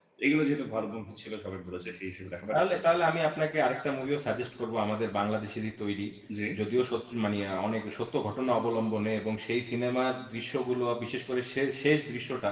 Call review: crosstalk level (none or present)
none